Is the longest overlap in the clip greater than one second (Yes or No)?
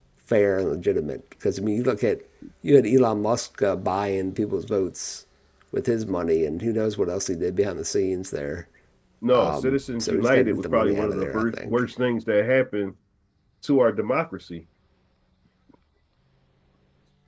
Yes